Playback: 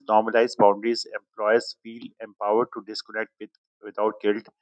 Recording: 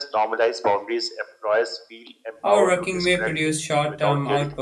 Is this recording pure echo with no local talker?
No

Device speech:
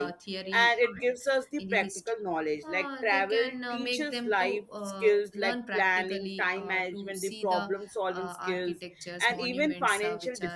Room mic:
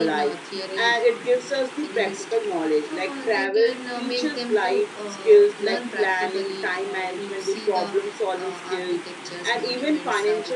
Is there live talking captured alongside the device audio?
No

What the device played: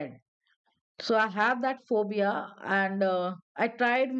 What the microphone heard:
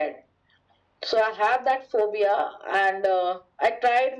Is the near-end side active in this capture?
No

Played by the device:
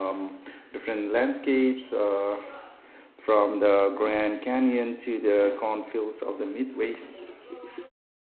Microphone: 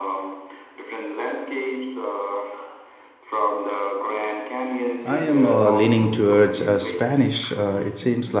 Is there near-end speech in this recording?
Yes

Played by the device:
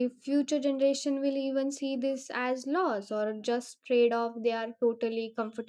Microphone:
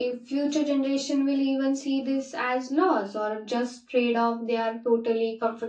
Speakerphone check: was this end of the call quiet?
Yes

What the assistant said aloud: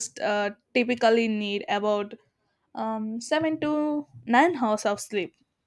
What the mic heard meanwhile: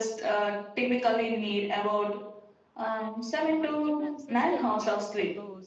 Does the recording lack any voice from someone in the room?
No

